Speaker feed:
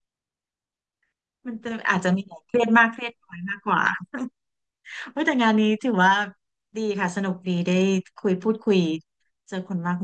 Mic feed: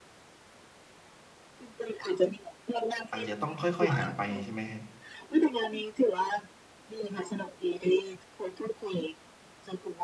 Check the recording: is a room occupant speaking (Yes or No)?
Yes